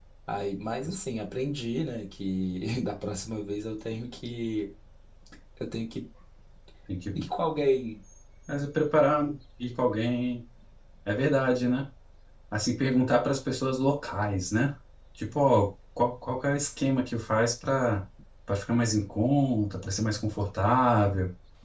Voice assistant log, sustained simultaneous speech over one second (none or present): none